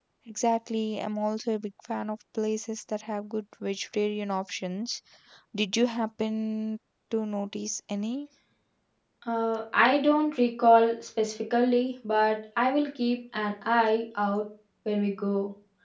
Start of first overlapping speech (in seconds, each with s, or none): none